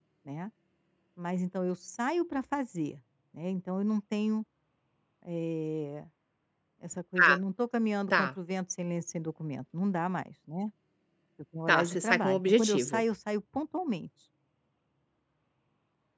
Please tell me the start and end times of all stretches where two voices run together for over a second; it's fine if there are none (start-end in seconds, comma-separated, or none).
11.7-13.0